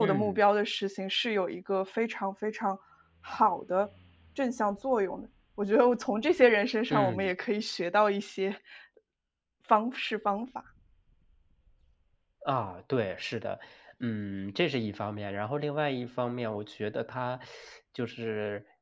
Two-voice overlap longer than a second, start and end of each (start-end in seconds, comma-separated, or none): none